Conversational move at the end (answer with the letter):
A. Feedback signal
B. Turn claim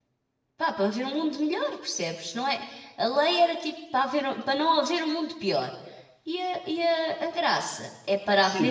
B